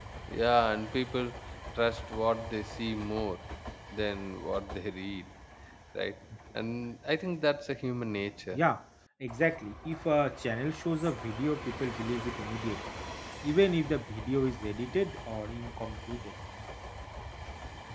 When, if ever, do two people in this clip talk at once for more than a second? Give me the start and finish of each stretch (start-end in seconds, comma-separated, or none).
none